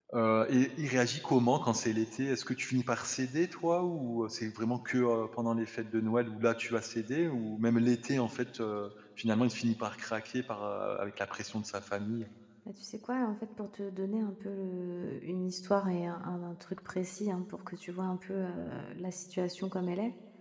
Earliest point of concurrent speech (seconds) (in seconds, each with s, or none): none